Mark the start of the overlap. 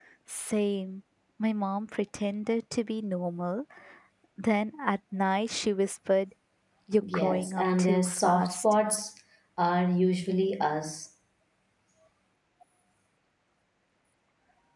7 s

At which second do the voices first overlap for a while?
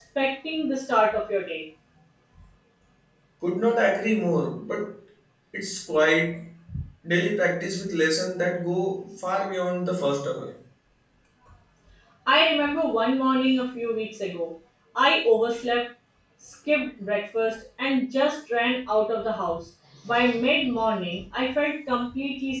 none

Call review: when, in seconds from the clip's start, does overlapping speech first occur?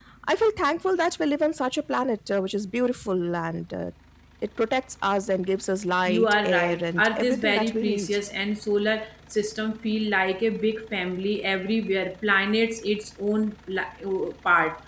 6 s

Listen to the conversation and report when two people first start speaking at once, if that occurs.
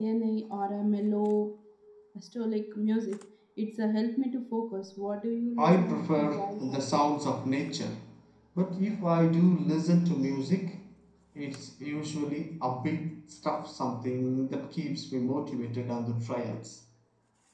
6 s

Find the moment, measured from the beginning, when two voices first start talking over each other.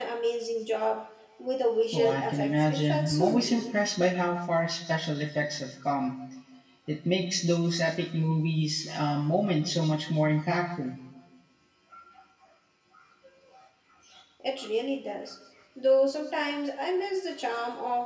2 s

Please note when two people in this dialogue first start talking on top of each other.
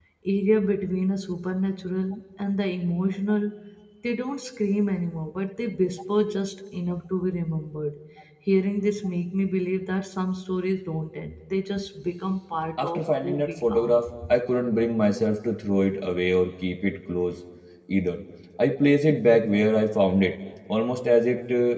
13 s

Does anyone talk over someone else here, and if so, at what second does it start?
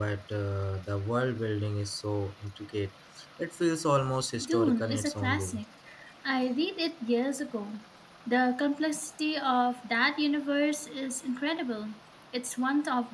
4 s

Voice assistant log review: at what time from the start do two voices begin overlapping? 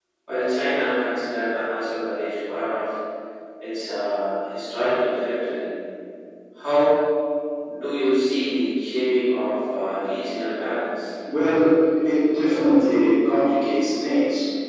none

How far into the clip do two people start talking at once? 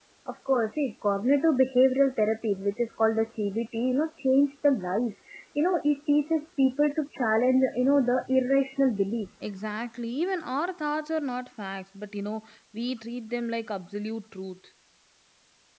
none

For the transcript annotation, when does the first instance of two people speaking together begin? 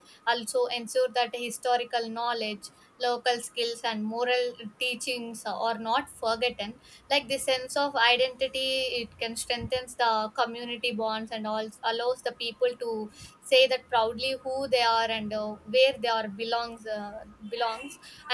none

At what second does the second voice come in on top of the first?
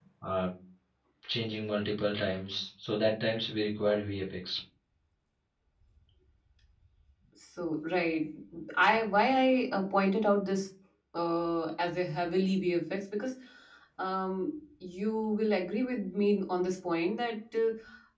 none

